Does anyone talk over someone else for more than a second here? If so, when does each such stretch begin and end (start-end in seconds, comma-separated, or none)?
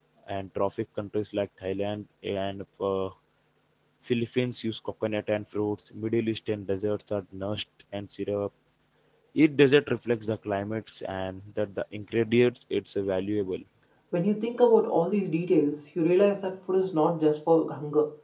none